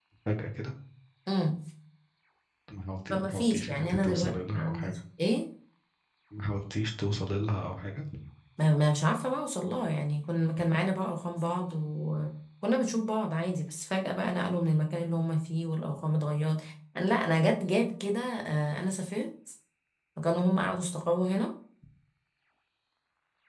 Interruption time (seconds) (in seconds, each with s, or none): 3.1 s